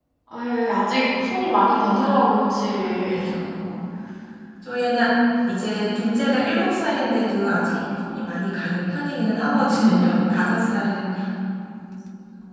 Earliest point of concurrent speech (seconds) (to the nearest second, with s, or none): 2 s